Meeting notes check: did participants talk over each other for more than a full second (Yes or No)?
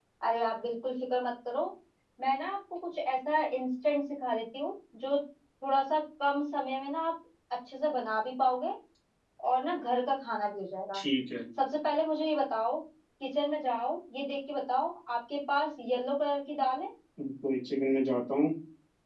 No